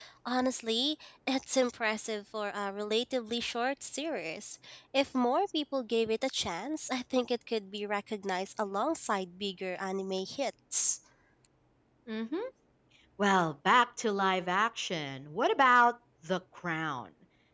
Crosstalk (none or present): none